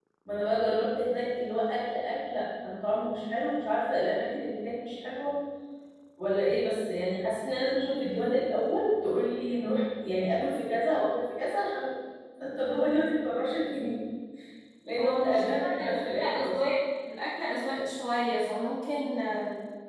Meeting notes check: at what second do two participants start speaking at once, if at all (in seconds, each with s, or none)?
15.0 s